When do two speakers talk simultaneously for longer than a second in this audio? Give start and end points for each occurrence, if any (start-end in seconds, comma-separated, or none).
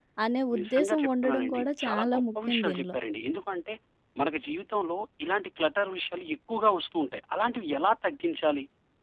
0.6-3.0